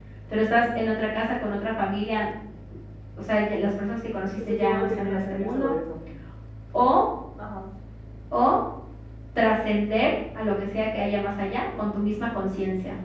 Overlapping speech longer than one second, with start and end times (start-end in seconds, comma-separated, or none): 4.5-5.7